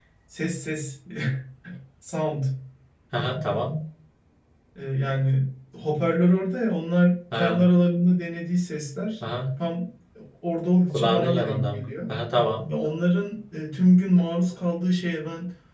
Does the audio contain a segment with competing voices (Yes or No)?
Yes